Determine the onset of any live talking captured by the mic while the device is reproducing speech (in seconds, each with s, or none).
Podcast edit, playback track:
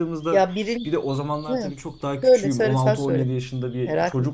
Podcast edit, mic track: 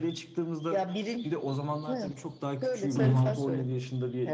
3.0 s